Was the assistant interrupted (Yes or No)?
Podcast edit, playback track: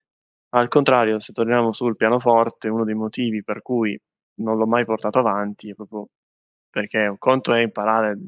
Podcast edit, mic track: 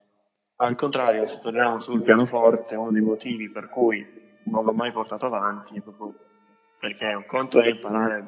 No